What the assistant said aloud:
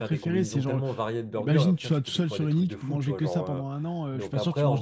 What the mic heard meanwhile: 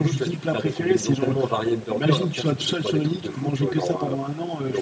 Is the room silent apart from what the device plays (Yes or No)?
Yes